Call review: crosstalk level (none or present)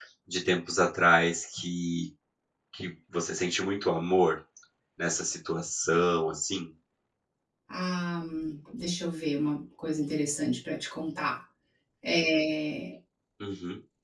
none